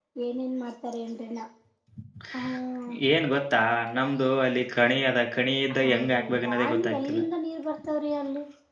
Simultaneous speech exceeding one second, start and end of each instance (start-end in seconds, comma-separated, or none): 5.8-7.2